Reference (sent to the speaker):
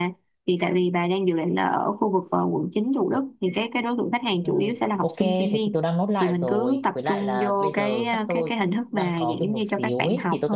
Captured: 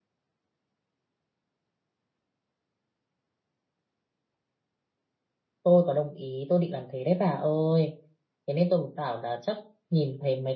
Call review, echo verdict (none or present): none